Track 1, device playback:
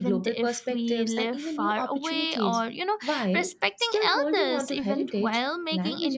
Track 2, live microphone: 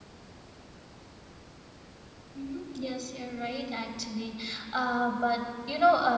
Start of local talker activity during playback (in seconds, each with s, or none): 2.3 s